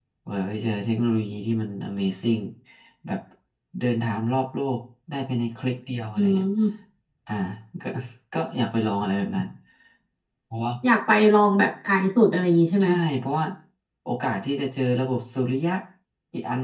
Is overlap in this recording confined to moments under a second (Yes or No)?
Yes